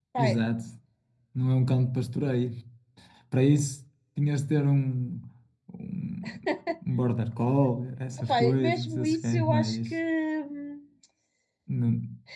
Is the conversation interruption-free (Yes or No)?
No